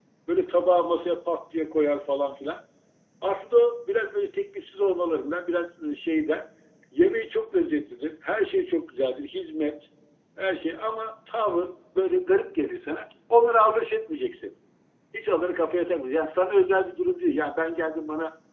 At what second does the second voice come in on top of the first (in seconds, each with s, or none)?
none